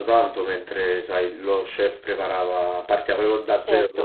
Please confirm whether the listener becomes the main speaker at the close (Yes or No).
No